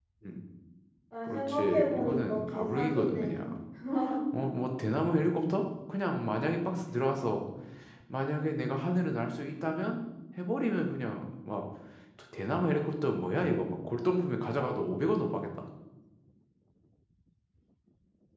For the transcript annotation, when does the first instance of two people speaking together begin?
1.2 s

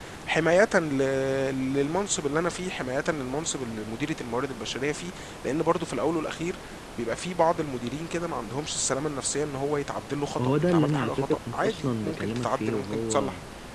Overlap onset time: 10.4 s

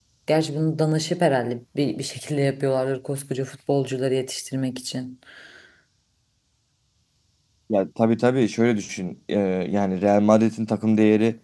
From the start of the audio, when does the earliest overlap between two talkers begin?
none

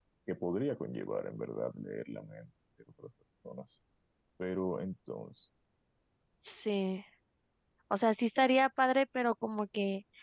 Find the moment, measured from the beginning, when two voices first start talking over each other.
none

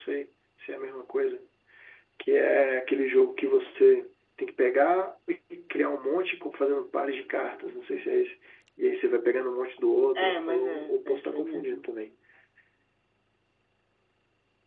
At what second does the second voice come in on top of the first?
10.2 s

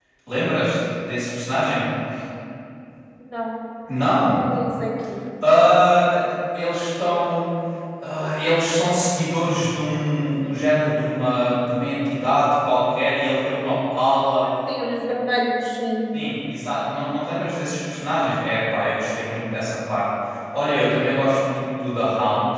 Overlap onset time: none

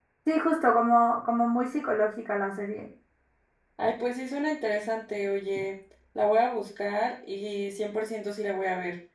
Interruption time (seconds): none

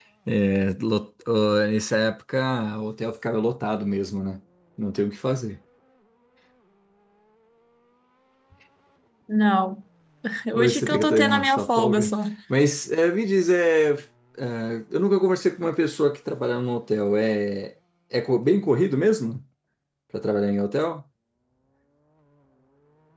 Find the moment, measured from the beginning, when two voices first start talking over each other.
10.5 s

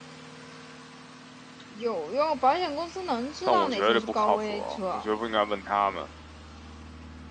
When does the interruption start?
3.5 s

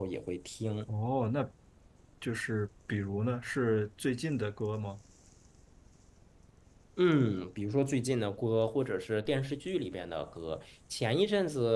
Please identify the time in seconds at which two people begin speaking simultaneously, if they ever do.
none

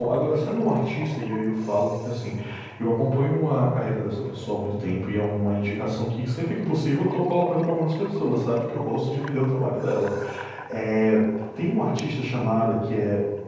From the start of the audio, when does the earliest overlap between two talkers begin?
none

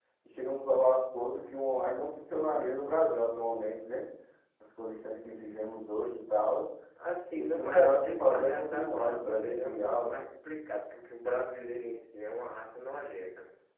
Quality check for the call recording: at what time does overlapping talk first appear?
7.3 s

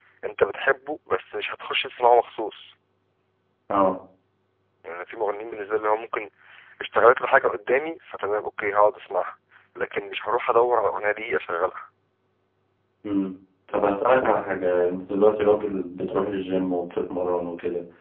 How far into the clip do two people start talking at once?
none

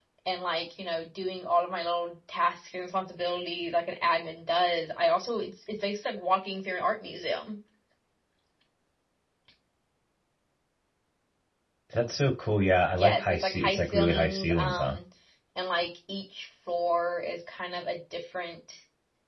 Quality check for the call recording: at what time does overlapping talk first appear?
12.8 s

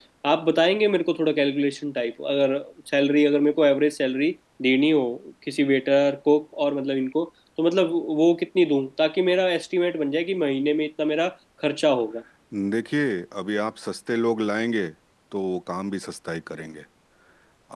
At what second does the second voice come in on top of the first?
none

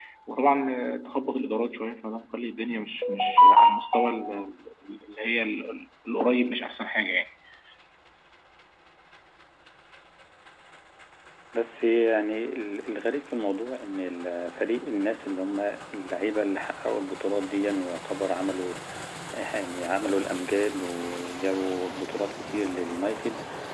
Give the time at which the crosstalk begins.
none

